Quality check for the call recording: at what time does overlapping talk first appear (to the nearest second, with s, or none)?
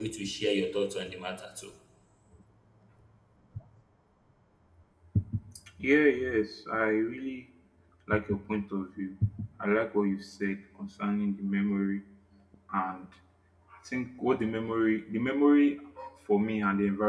none